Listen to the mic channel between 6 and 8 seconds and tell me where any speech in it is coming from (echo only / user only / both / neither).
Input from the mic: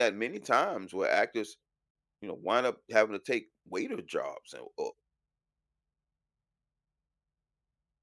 neither